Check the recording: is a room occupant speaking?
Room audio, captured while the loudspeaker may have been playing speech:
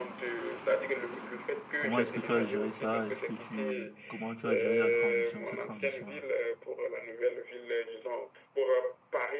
Yes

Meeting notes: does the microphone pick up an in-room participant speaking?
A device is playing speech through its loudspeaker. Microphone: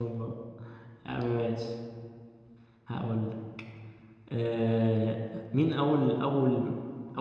Yes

